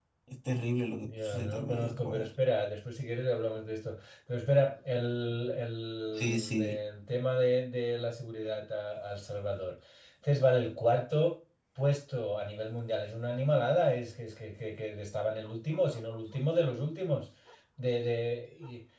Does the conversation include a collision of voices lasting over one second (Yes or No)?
Yes